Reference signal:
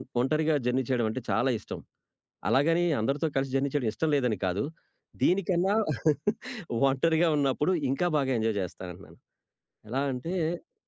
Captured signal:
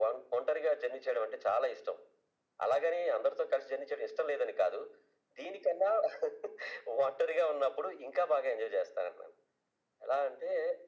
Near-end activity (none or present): none